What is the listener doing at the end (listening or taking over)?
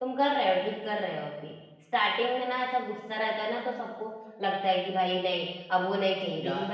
listening